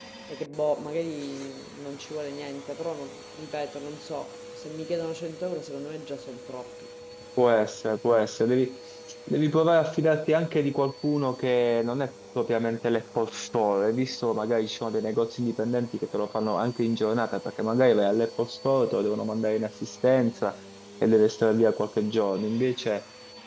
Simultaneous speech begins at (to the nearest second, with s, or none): none